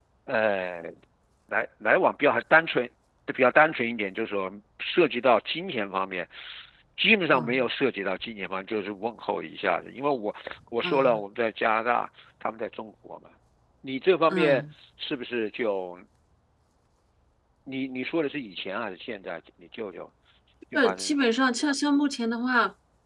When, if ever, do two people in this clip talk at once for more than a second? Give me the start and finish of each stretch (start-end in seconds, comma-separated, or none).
none